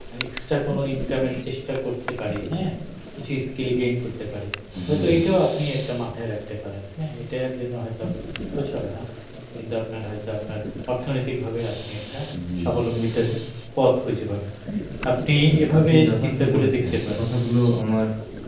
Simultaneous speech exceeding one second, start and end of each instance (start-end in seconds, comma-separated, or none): 15.5-17.2